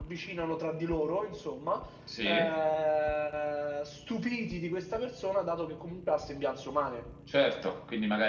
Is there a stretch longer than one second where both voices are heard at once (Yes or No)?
No